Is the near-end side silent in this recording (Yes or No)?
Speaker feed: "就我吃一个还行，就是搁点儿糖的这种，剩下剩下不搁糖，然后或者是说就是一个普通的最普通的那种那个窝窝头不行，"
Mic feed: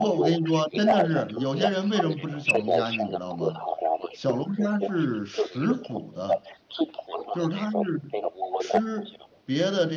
No